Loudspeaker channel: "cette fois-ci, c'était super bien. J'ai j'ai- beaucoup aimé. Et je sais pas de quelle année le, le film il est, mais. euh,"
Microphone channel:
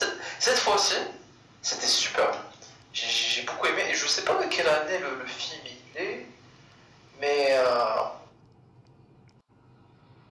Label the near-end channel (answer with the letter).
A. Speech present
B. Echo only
B